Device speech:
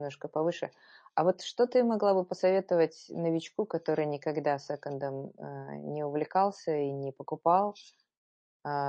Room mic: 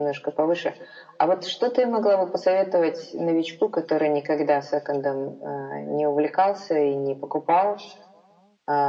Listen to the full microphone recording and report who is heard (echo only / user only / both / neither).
echo only